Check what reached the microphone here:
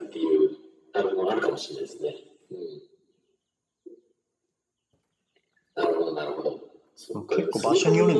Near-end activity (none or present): present